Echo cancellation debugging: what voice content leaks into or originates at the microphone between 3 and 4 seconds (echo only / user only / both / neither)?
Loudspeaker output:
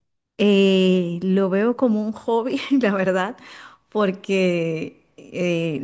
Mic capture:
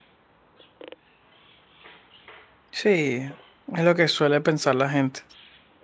user only